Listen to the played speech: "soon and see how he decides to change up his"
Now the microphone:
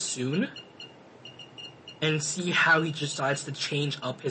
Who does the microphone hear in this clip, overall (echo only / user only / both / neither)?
echo only